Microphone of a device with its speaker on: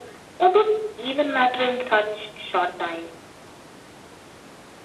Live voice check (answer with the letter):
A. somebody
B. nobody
B